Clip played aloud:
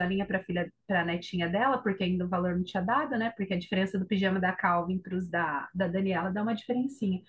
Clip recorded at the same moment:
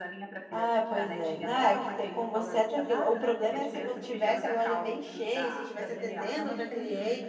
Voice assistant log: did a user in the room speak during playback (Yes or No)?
Yes